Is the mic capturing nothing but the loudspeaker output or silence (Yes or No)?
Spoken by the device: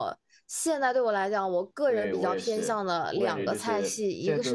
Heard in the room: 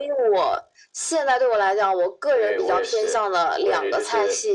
Yes